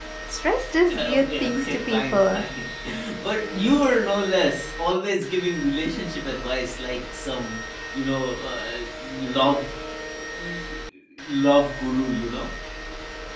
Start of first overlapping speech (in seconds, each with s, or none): 0.9 s